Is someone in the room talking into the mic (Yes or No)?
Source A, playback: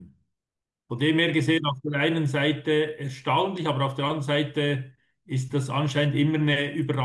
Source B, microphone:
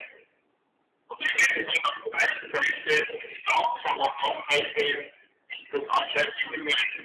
No